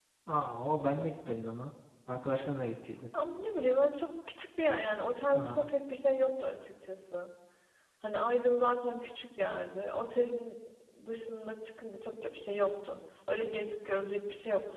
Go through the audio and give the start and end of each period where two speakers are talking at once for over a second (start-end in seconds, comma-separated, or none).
none